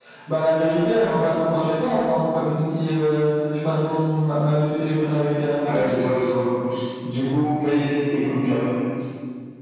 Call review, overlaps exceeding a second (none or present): none